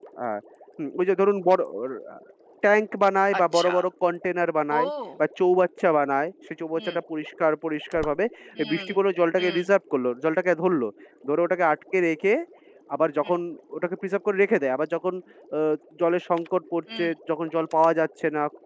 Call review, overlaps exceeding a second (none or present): none